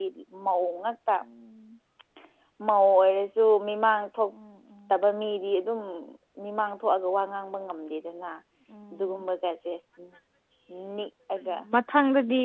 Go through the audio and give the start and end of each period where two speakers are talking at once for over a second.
none

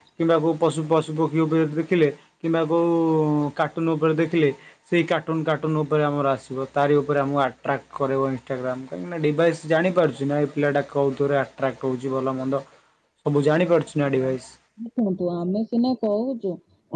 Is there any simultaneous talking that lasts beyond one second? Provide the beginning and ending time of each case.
none

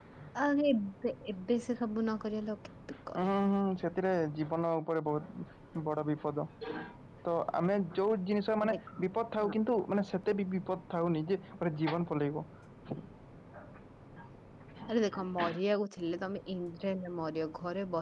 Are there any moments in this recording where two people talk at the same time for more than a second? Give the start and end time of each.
none

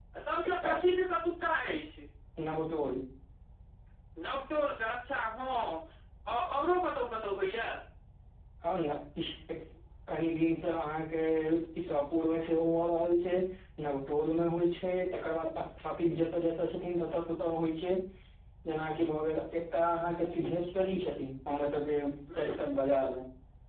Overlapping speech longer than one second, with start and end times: none

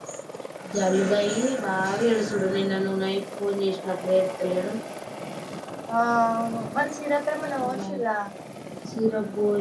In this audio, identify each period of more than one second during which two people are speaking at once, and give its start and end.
none

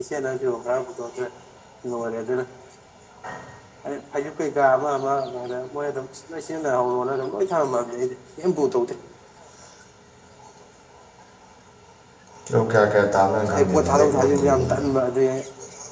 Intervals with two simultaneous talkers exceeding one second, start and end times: 13.6-14.8

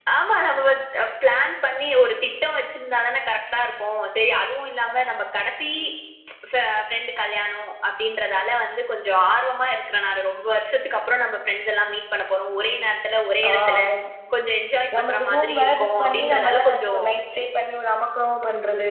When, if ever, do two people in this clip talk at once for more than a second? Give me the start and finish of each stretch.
15.0-16.9

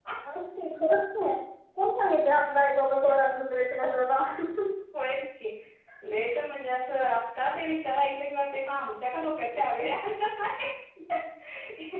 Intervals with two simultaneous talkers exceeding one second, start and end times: none

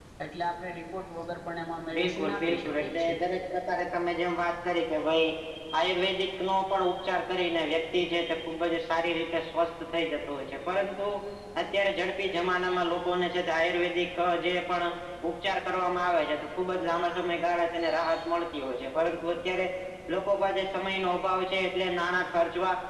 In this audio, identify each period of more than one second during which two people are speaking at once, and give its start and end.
2.0-3.2

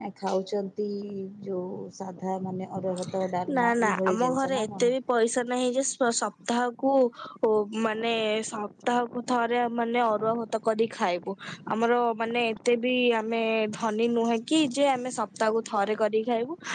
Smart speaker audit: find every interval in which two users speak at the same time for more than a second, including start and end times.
3.5-4.9

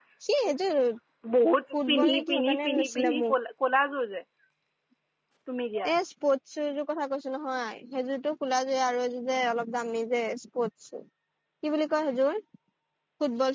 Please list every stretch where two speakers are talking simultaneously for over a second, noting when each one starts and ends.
1.9-3.3

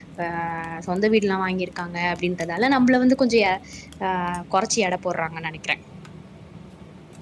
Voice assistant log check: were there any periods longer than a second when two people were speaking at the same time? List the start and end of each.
none

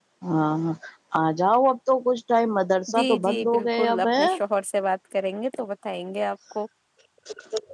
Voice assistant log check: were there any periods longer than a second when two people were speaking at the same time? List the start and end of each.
2.9-4.2

